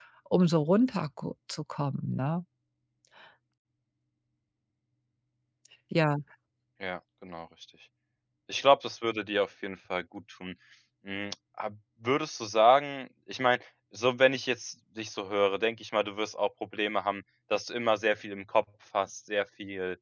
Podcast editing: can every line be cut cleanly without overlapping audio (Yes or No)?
Yes